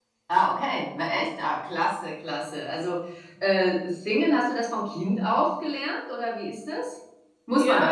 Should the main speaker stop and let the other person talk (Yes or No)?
Yes